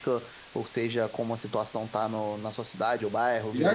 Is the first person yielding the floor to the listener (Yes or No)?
Yes